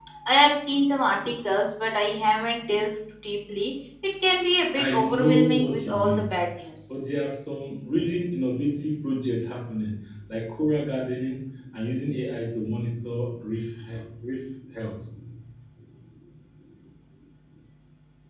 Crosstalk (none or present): present